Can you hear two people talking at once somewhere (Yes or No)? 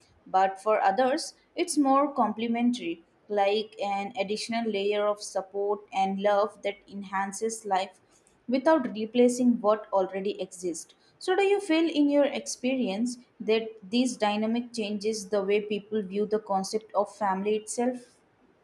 No